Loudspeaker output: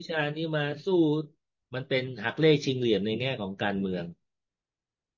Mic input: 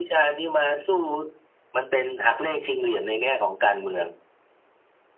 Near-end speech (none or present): none